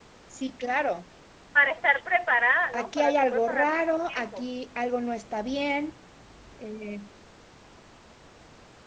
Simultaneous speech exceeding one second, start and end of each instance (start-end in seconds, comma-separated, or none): 2.7-4.5